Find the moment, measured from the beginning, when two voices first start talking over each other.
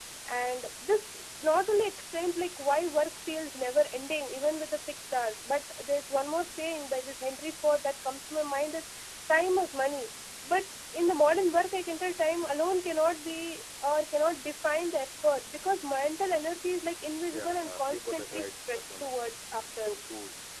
17.3 s

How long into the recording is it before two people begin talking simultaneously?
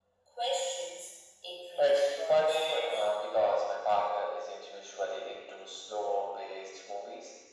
1.8 s

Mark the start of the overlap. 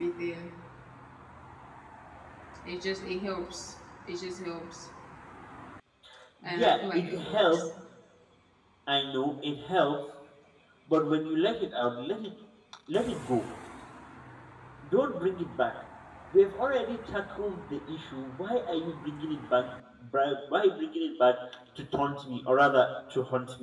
6.4 s

